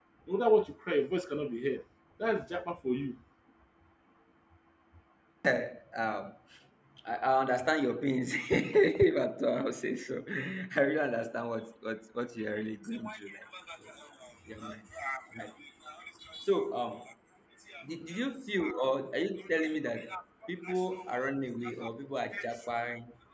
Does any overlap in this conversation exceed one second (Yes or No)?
No